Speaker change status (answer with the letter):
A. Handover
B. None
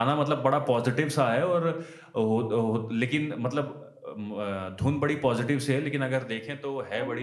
A